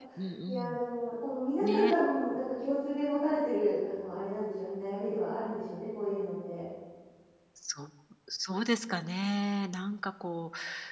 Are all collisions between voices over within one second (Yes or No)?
Yes